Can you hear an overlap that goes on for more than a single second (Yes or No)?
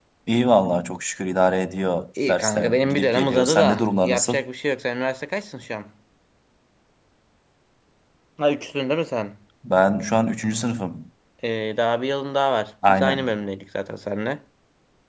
Yes